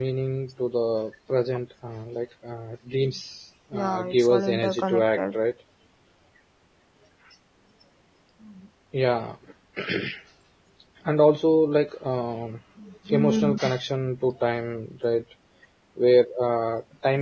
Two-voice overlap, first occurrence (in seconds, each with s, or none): 3.7 s